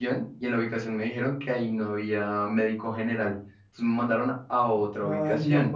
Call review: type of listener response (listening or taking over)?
taking over